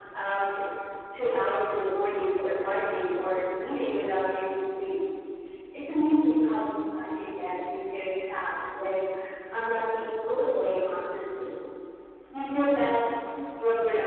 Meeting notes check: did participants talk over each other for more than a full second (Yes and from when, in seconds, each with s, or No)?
No